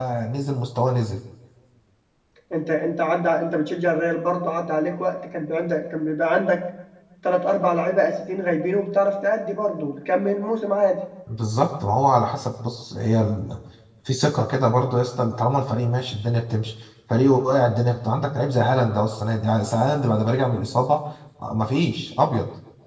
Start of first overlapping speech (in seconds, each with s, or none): none